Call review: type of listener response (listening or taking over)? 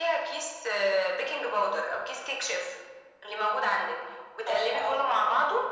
listening